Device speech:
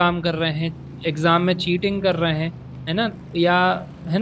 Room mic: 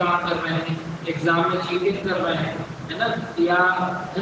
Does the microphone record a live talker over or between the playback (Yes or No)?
No